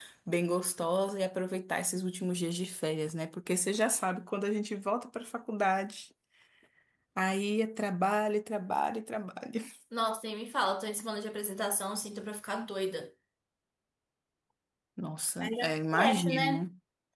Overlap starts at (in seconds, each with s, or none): 15.4 s